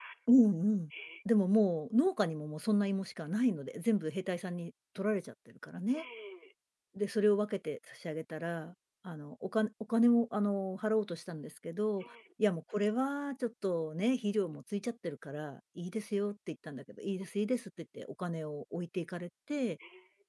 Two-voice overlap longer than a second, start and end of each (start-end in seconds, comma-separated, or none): none